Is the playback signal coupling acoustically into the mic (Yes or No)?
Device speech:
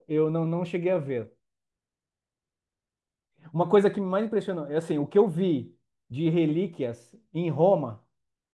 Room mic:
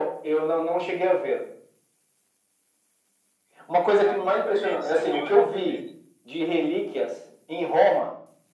Yes